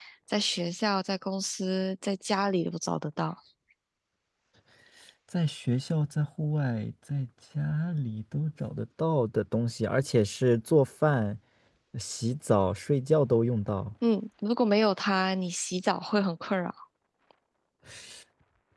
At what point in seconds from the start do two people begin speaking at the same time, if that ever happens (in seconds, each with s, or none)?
none